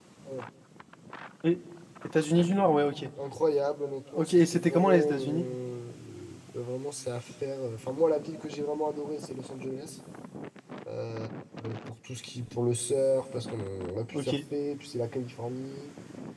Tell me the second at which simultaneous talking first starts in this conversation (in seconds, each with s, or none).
4.2 s